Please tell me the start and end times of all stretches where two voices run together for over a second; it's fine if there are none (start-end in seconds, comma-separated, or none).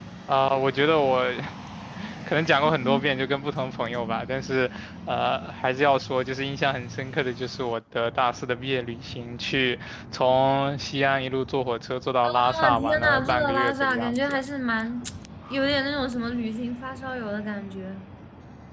12.2-14.4